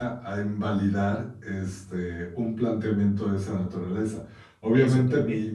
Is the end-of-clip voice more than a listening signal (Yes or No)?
No